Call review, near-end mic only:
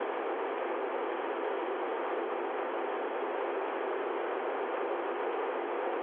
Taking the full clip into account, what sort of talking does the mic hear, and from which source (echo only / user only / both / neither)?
neither